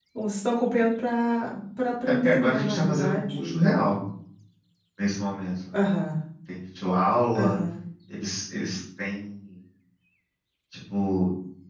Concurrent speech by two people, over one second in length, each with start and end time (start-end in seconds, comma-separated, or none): 2.2-3.9